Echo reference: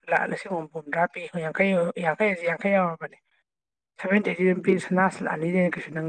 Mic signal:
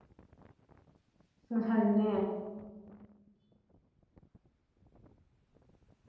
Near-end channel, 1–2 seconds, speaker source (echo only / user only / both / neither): user only